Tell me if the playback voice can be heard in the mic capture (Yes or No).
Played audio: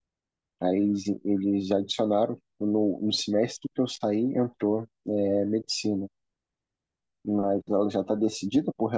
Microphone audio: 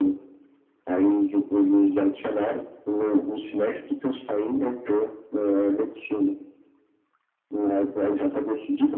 Yes